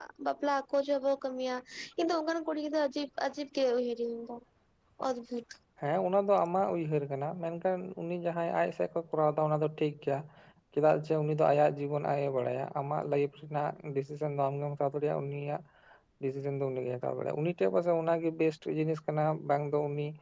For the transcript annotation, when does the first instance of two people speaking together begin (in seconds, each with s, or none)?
none